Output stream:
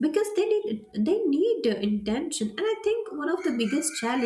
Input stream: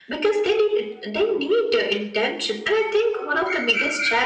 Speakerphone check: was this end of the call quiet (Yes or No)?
Yes